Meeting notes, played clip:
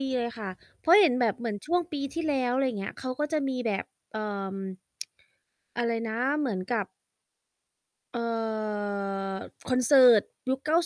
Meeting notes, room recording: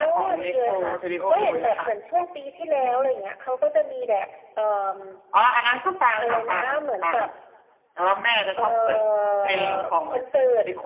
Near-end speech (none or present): present